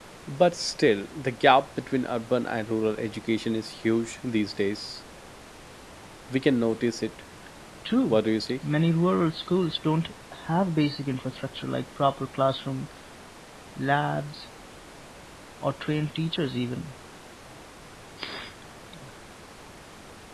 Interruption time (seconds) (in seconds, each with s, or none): none